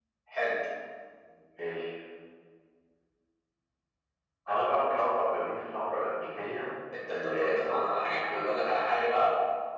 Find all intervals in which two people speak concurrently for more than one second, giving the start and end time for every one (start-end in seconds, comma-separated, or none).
7.0-8.8